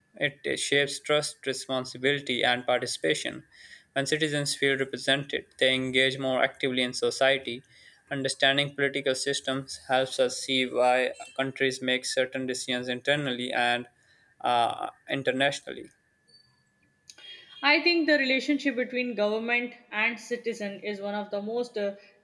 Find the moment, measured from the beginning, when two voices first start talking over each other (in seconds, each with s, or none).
none